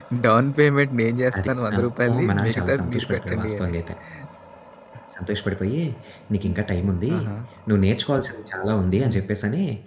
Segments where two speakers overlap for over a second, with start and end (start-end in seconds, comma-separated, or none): 1.4-3.7